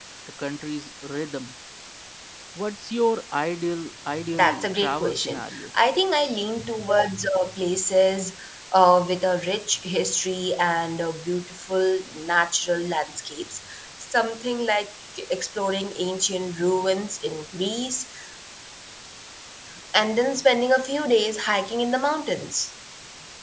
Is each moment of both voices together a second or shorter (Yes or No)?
No